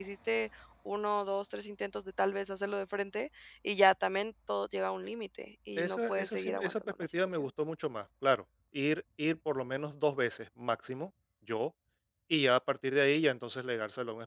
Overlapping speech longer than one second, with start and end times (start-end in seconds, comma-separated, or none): 5.8-7.5